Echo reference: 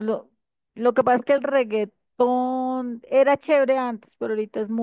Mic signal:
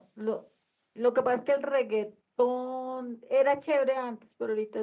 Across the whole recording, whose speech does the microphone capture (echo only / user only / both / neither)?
echo only